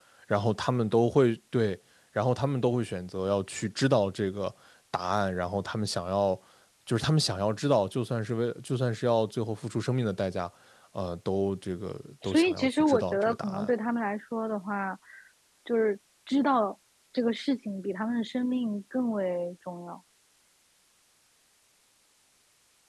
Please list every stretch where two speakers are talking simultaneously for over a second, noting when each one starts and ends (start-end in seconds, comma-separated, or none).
12.3-13.7